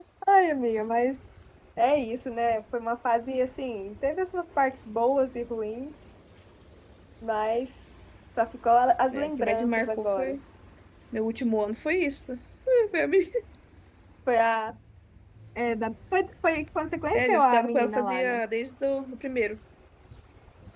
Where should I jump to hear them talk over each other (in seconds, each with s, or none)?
9.1 s